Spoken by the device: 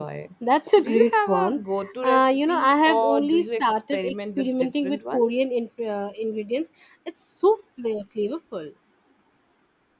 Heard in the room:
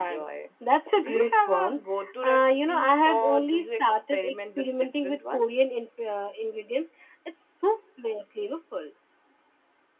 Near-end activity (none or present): none